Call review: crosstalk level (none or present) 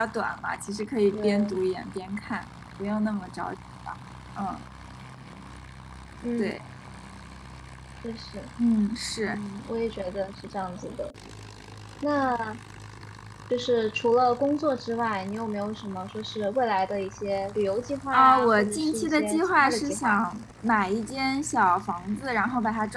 present